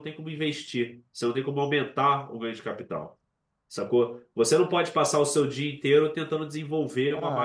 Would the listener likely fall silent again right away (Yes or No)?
No